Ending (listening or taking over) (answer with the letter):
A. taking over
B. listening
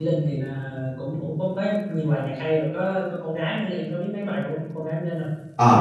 A